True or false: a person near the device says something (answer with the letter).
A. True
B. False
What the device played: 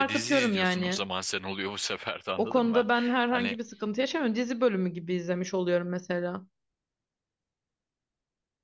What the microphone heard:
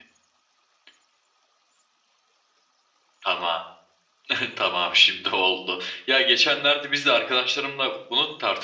A